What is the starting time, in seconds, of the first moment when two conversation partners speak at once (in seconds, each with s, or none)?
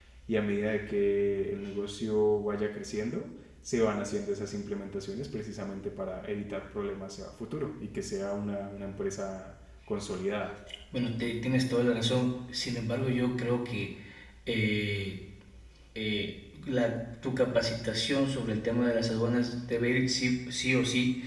none